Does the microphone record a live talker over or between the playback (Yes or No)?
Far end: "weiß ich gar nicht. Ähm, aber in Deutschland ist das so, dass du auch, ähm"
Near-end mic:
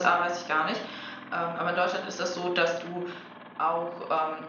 No